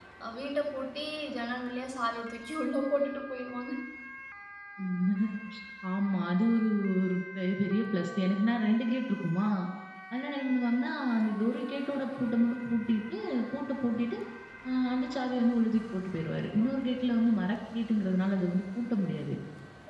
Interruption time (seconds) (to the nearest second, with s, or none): none